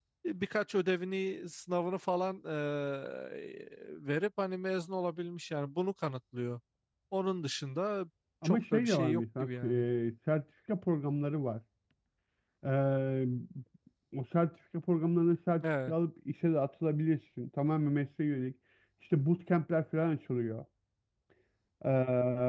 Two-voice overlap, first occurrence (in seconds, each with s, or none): 8.4 s